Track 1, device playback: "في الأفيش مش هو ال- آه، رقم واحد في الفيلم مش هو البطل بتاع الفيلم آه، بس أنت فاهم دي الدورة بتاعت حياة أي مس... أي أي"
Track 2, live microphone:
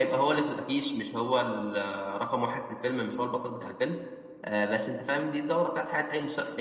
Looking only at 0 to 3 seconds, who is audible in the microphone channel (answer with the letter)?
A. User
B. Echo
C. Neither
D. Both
B